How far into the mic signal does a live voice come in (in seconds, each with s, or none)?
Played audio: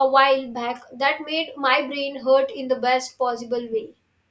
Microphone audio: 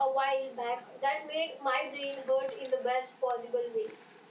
none